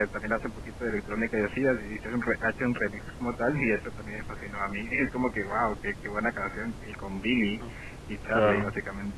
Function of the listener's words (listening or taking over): listening